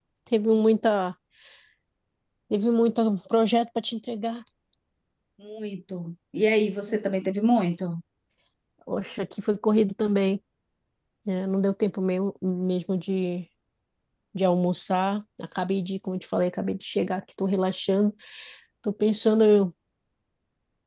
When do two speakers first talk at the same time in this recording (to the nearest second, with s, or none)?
none